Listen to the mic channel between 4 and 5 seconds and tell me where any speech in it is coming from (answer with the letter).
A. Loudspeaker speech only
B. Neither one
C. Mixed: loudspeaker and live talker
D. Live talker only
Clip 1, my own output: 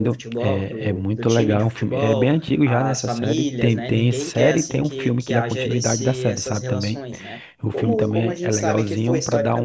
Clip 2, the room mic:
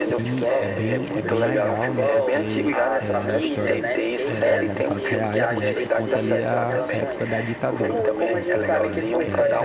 C